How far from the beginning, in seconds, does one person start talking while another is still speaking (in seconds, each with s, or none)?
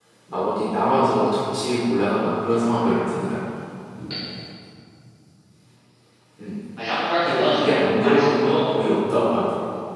7.2 s